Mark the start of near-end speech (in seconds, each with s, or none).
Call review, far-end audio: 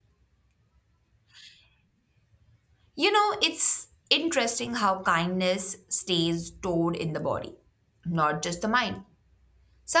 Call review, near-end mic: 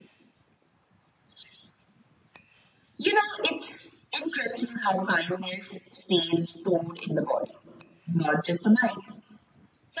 none